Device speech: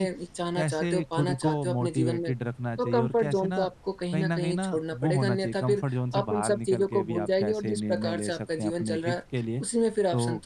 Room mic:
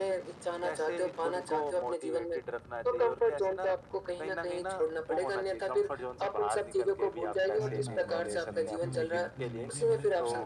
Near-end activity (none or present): present